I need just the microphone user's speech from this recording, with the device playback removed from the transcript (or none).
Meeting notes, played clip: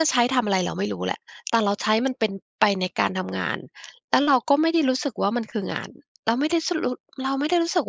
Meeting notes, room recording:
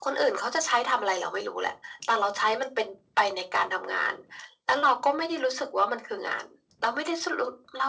none